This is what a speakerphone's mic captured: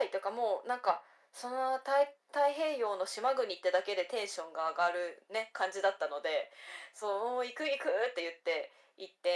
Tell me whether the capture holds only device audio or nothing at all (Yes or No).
Yes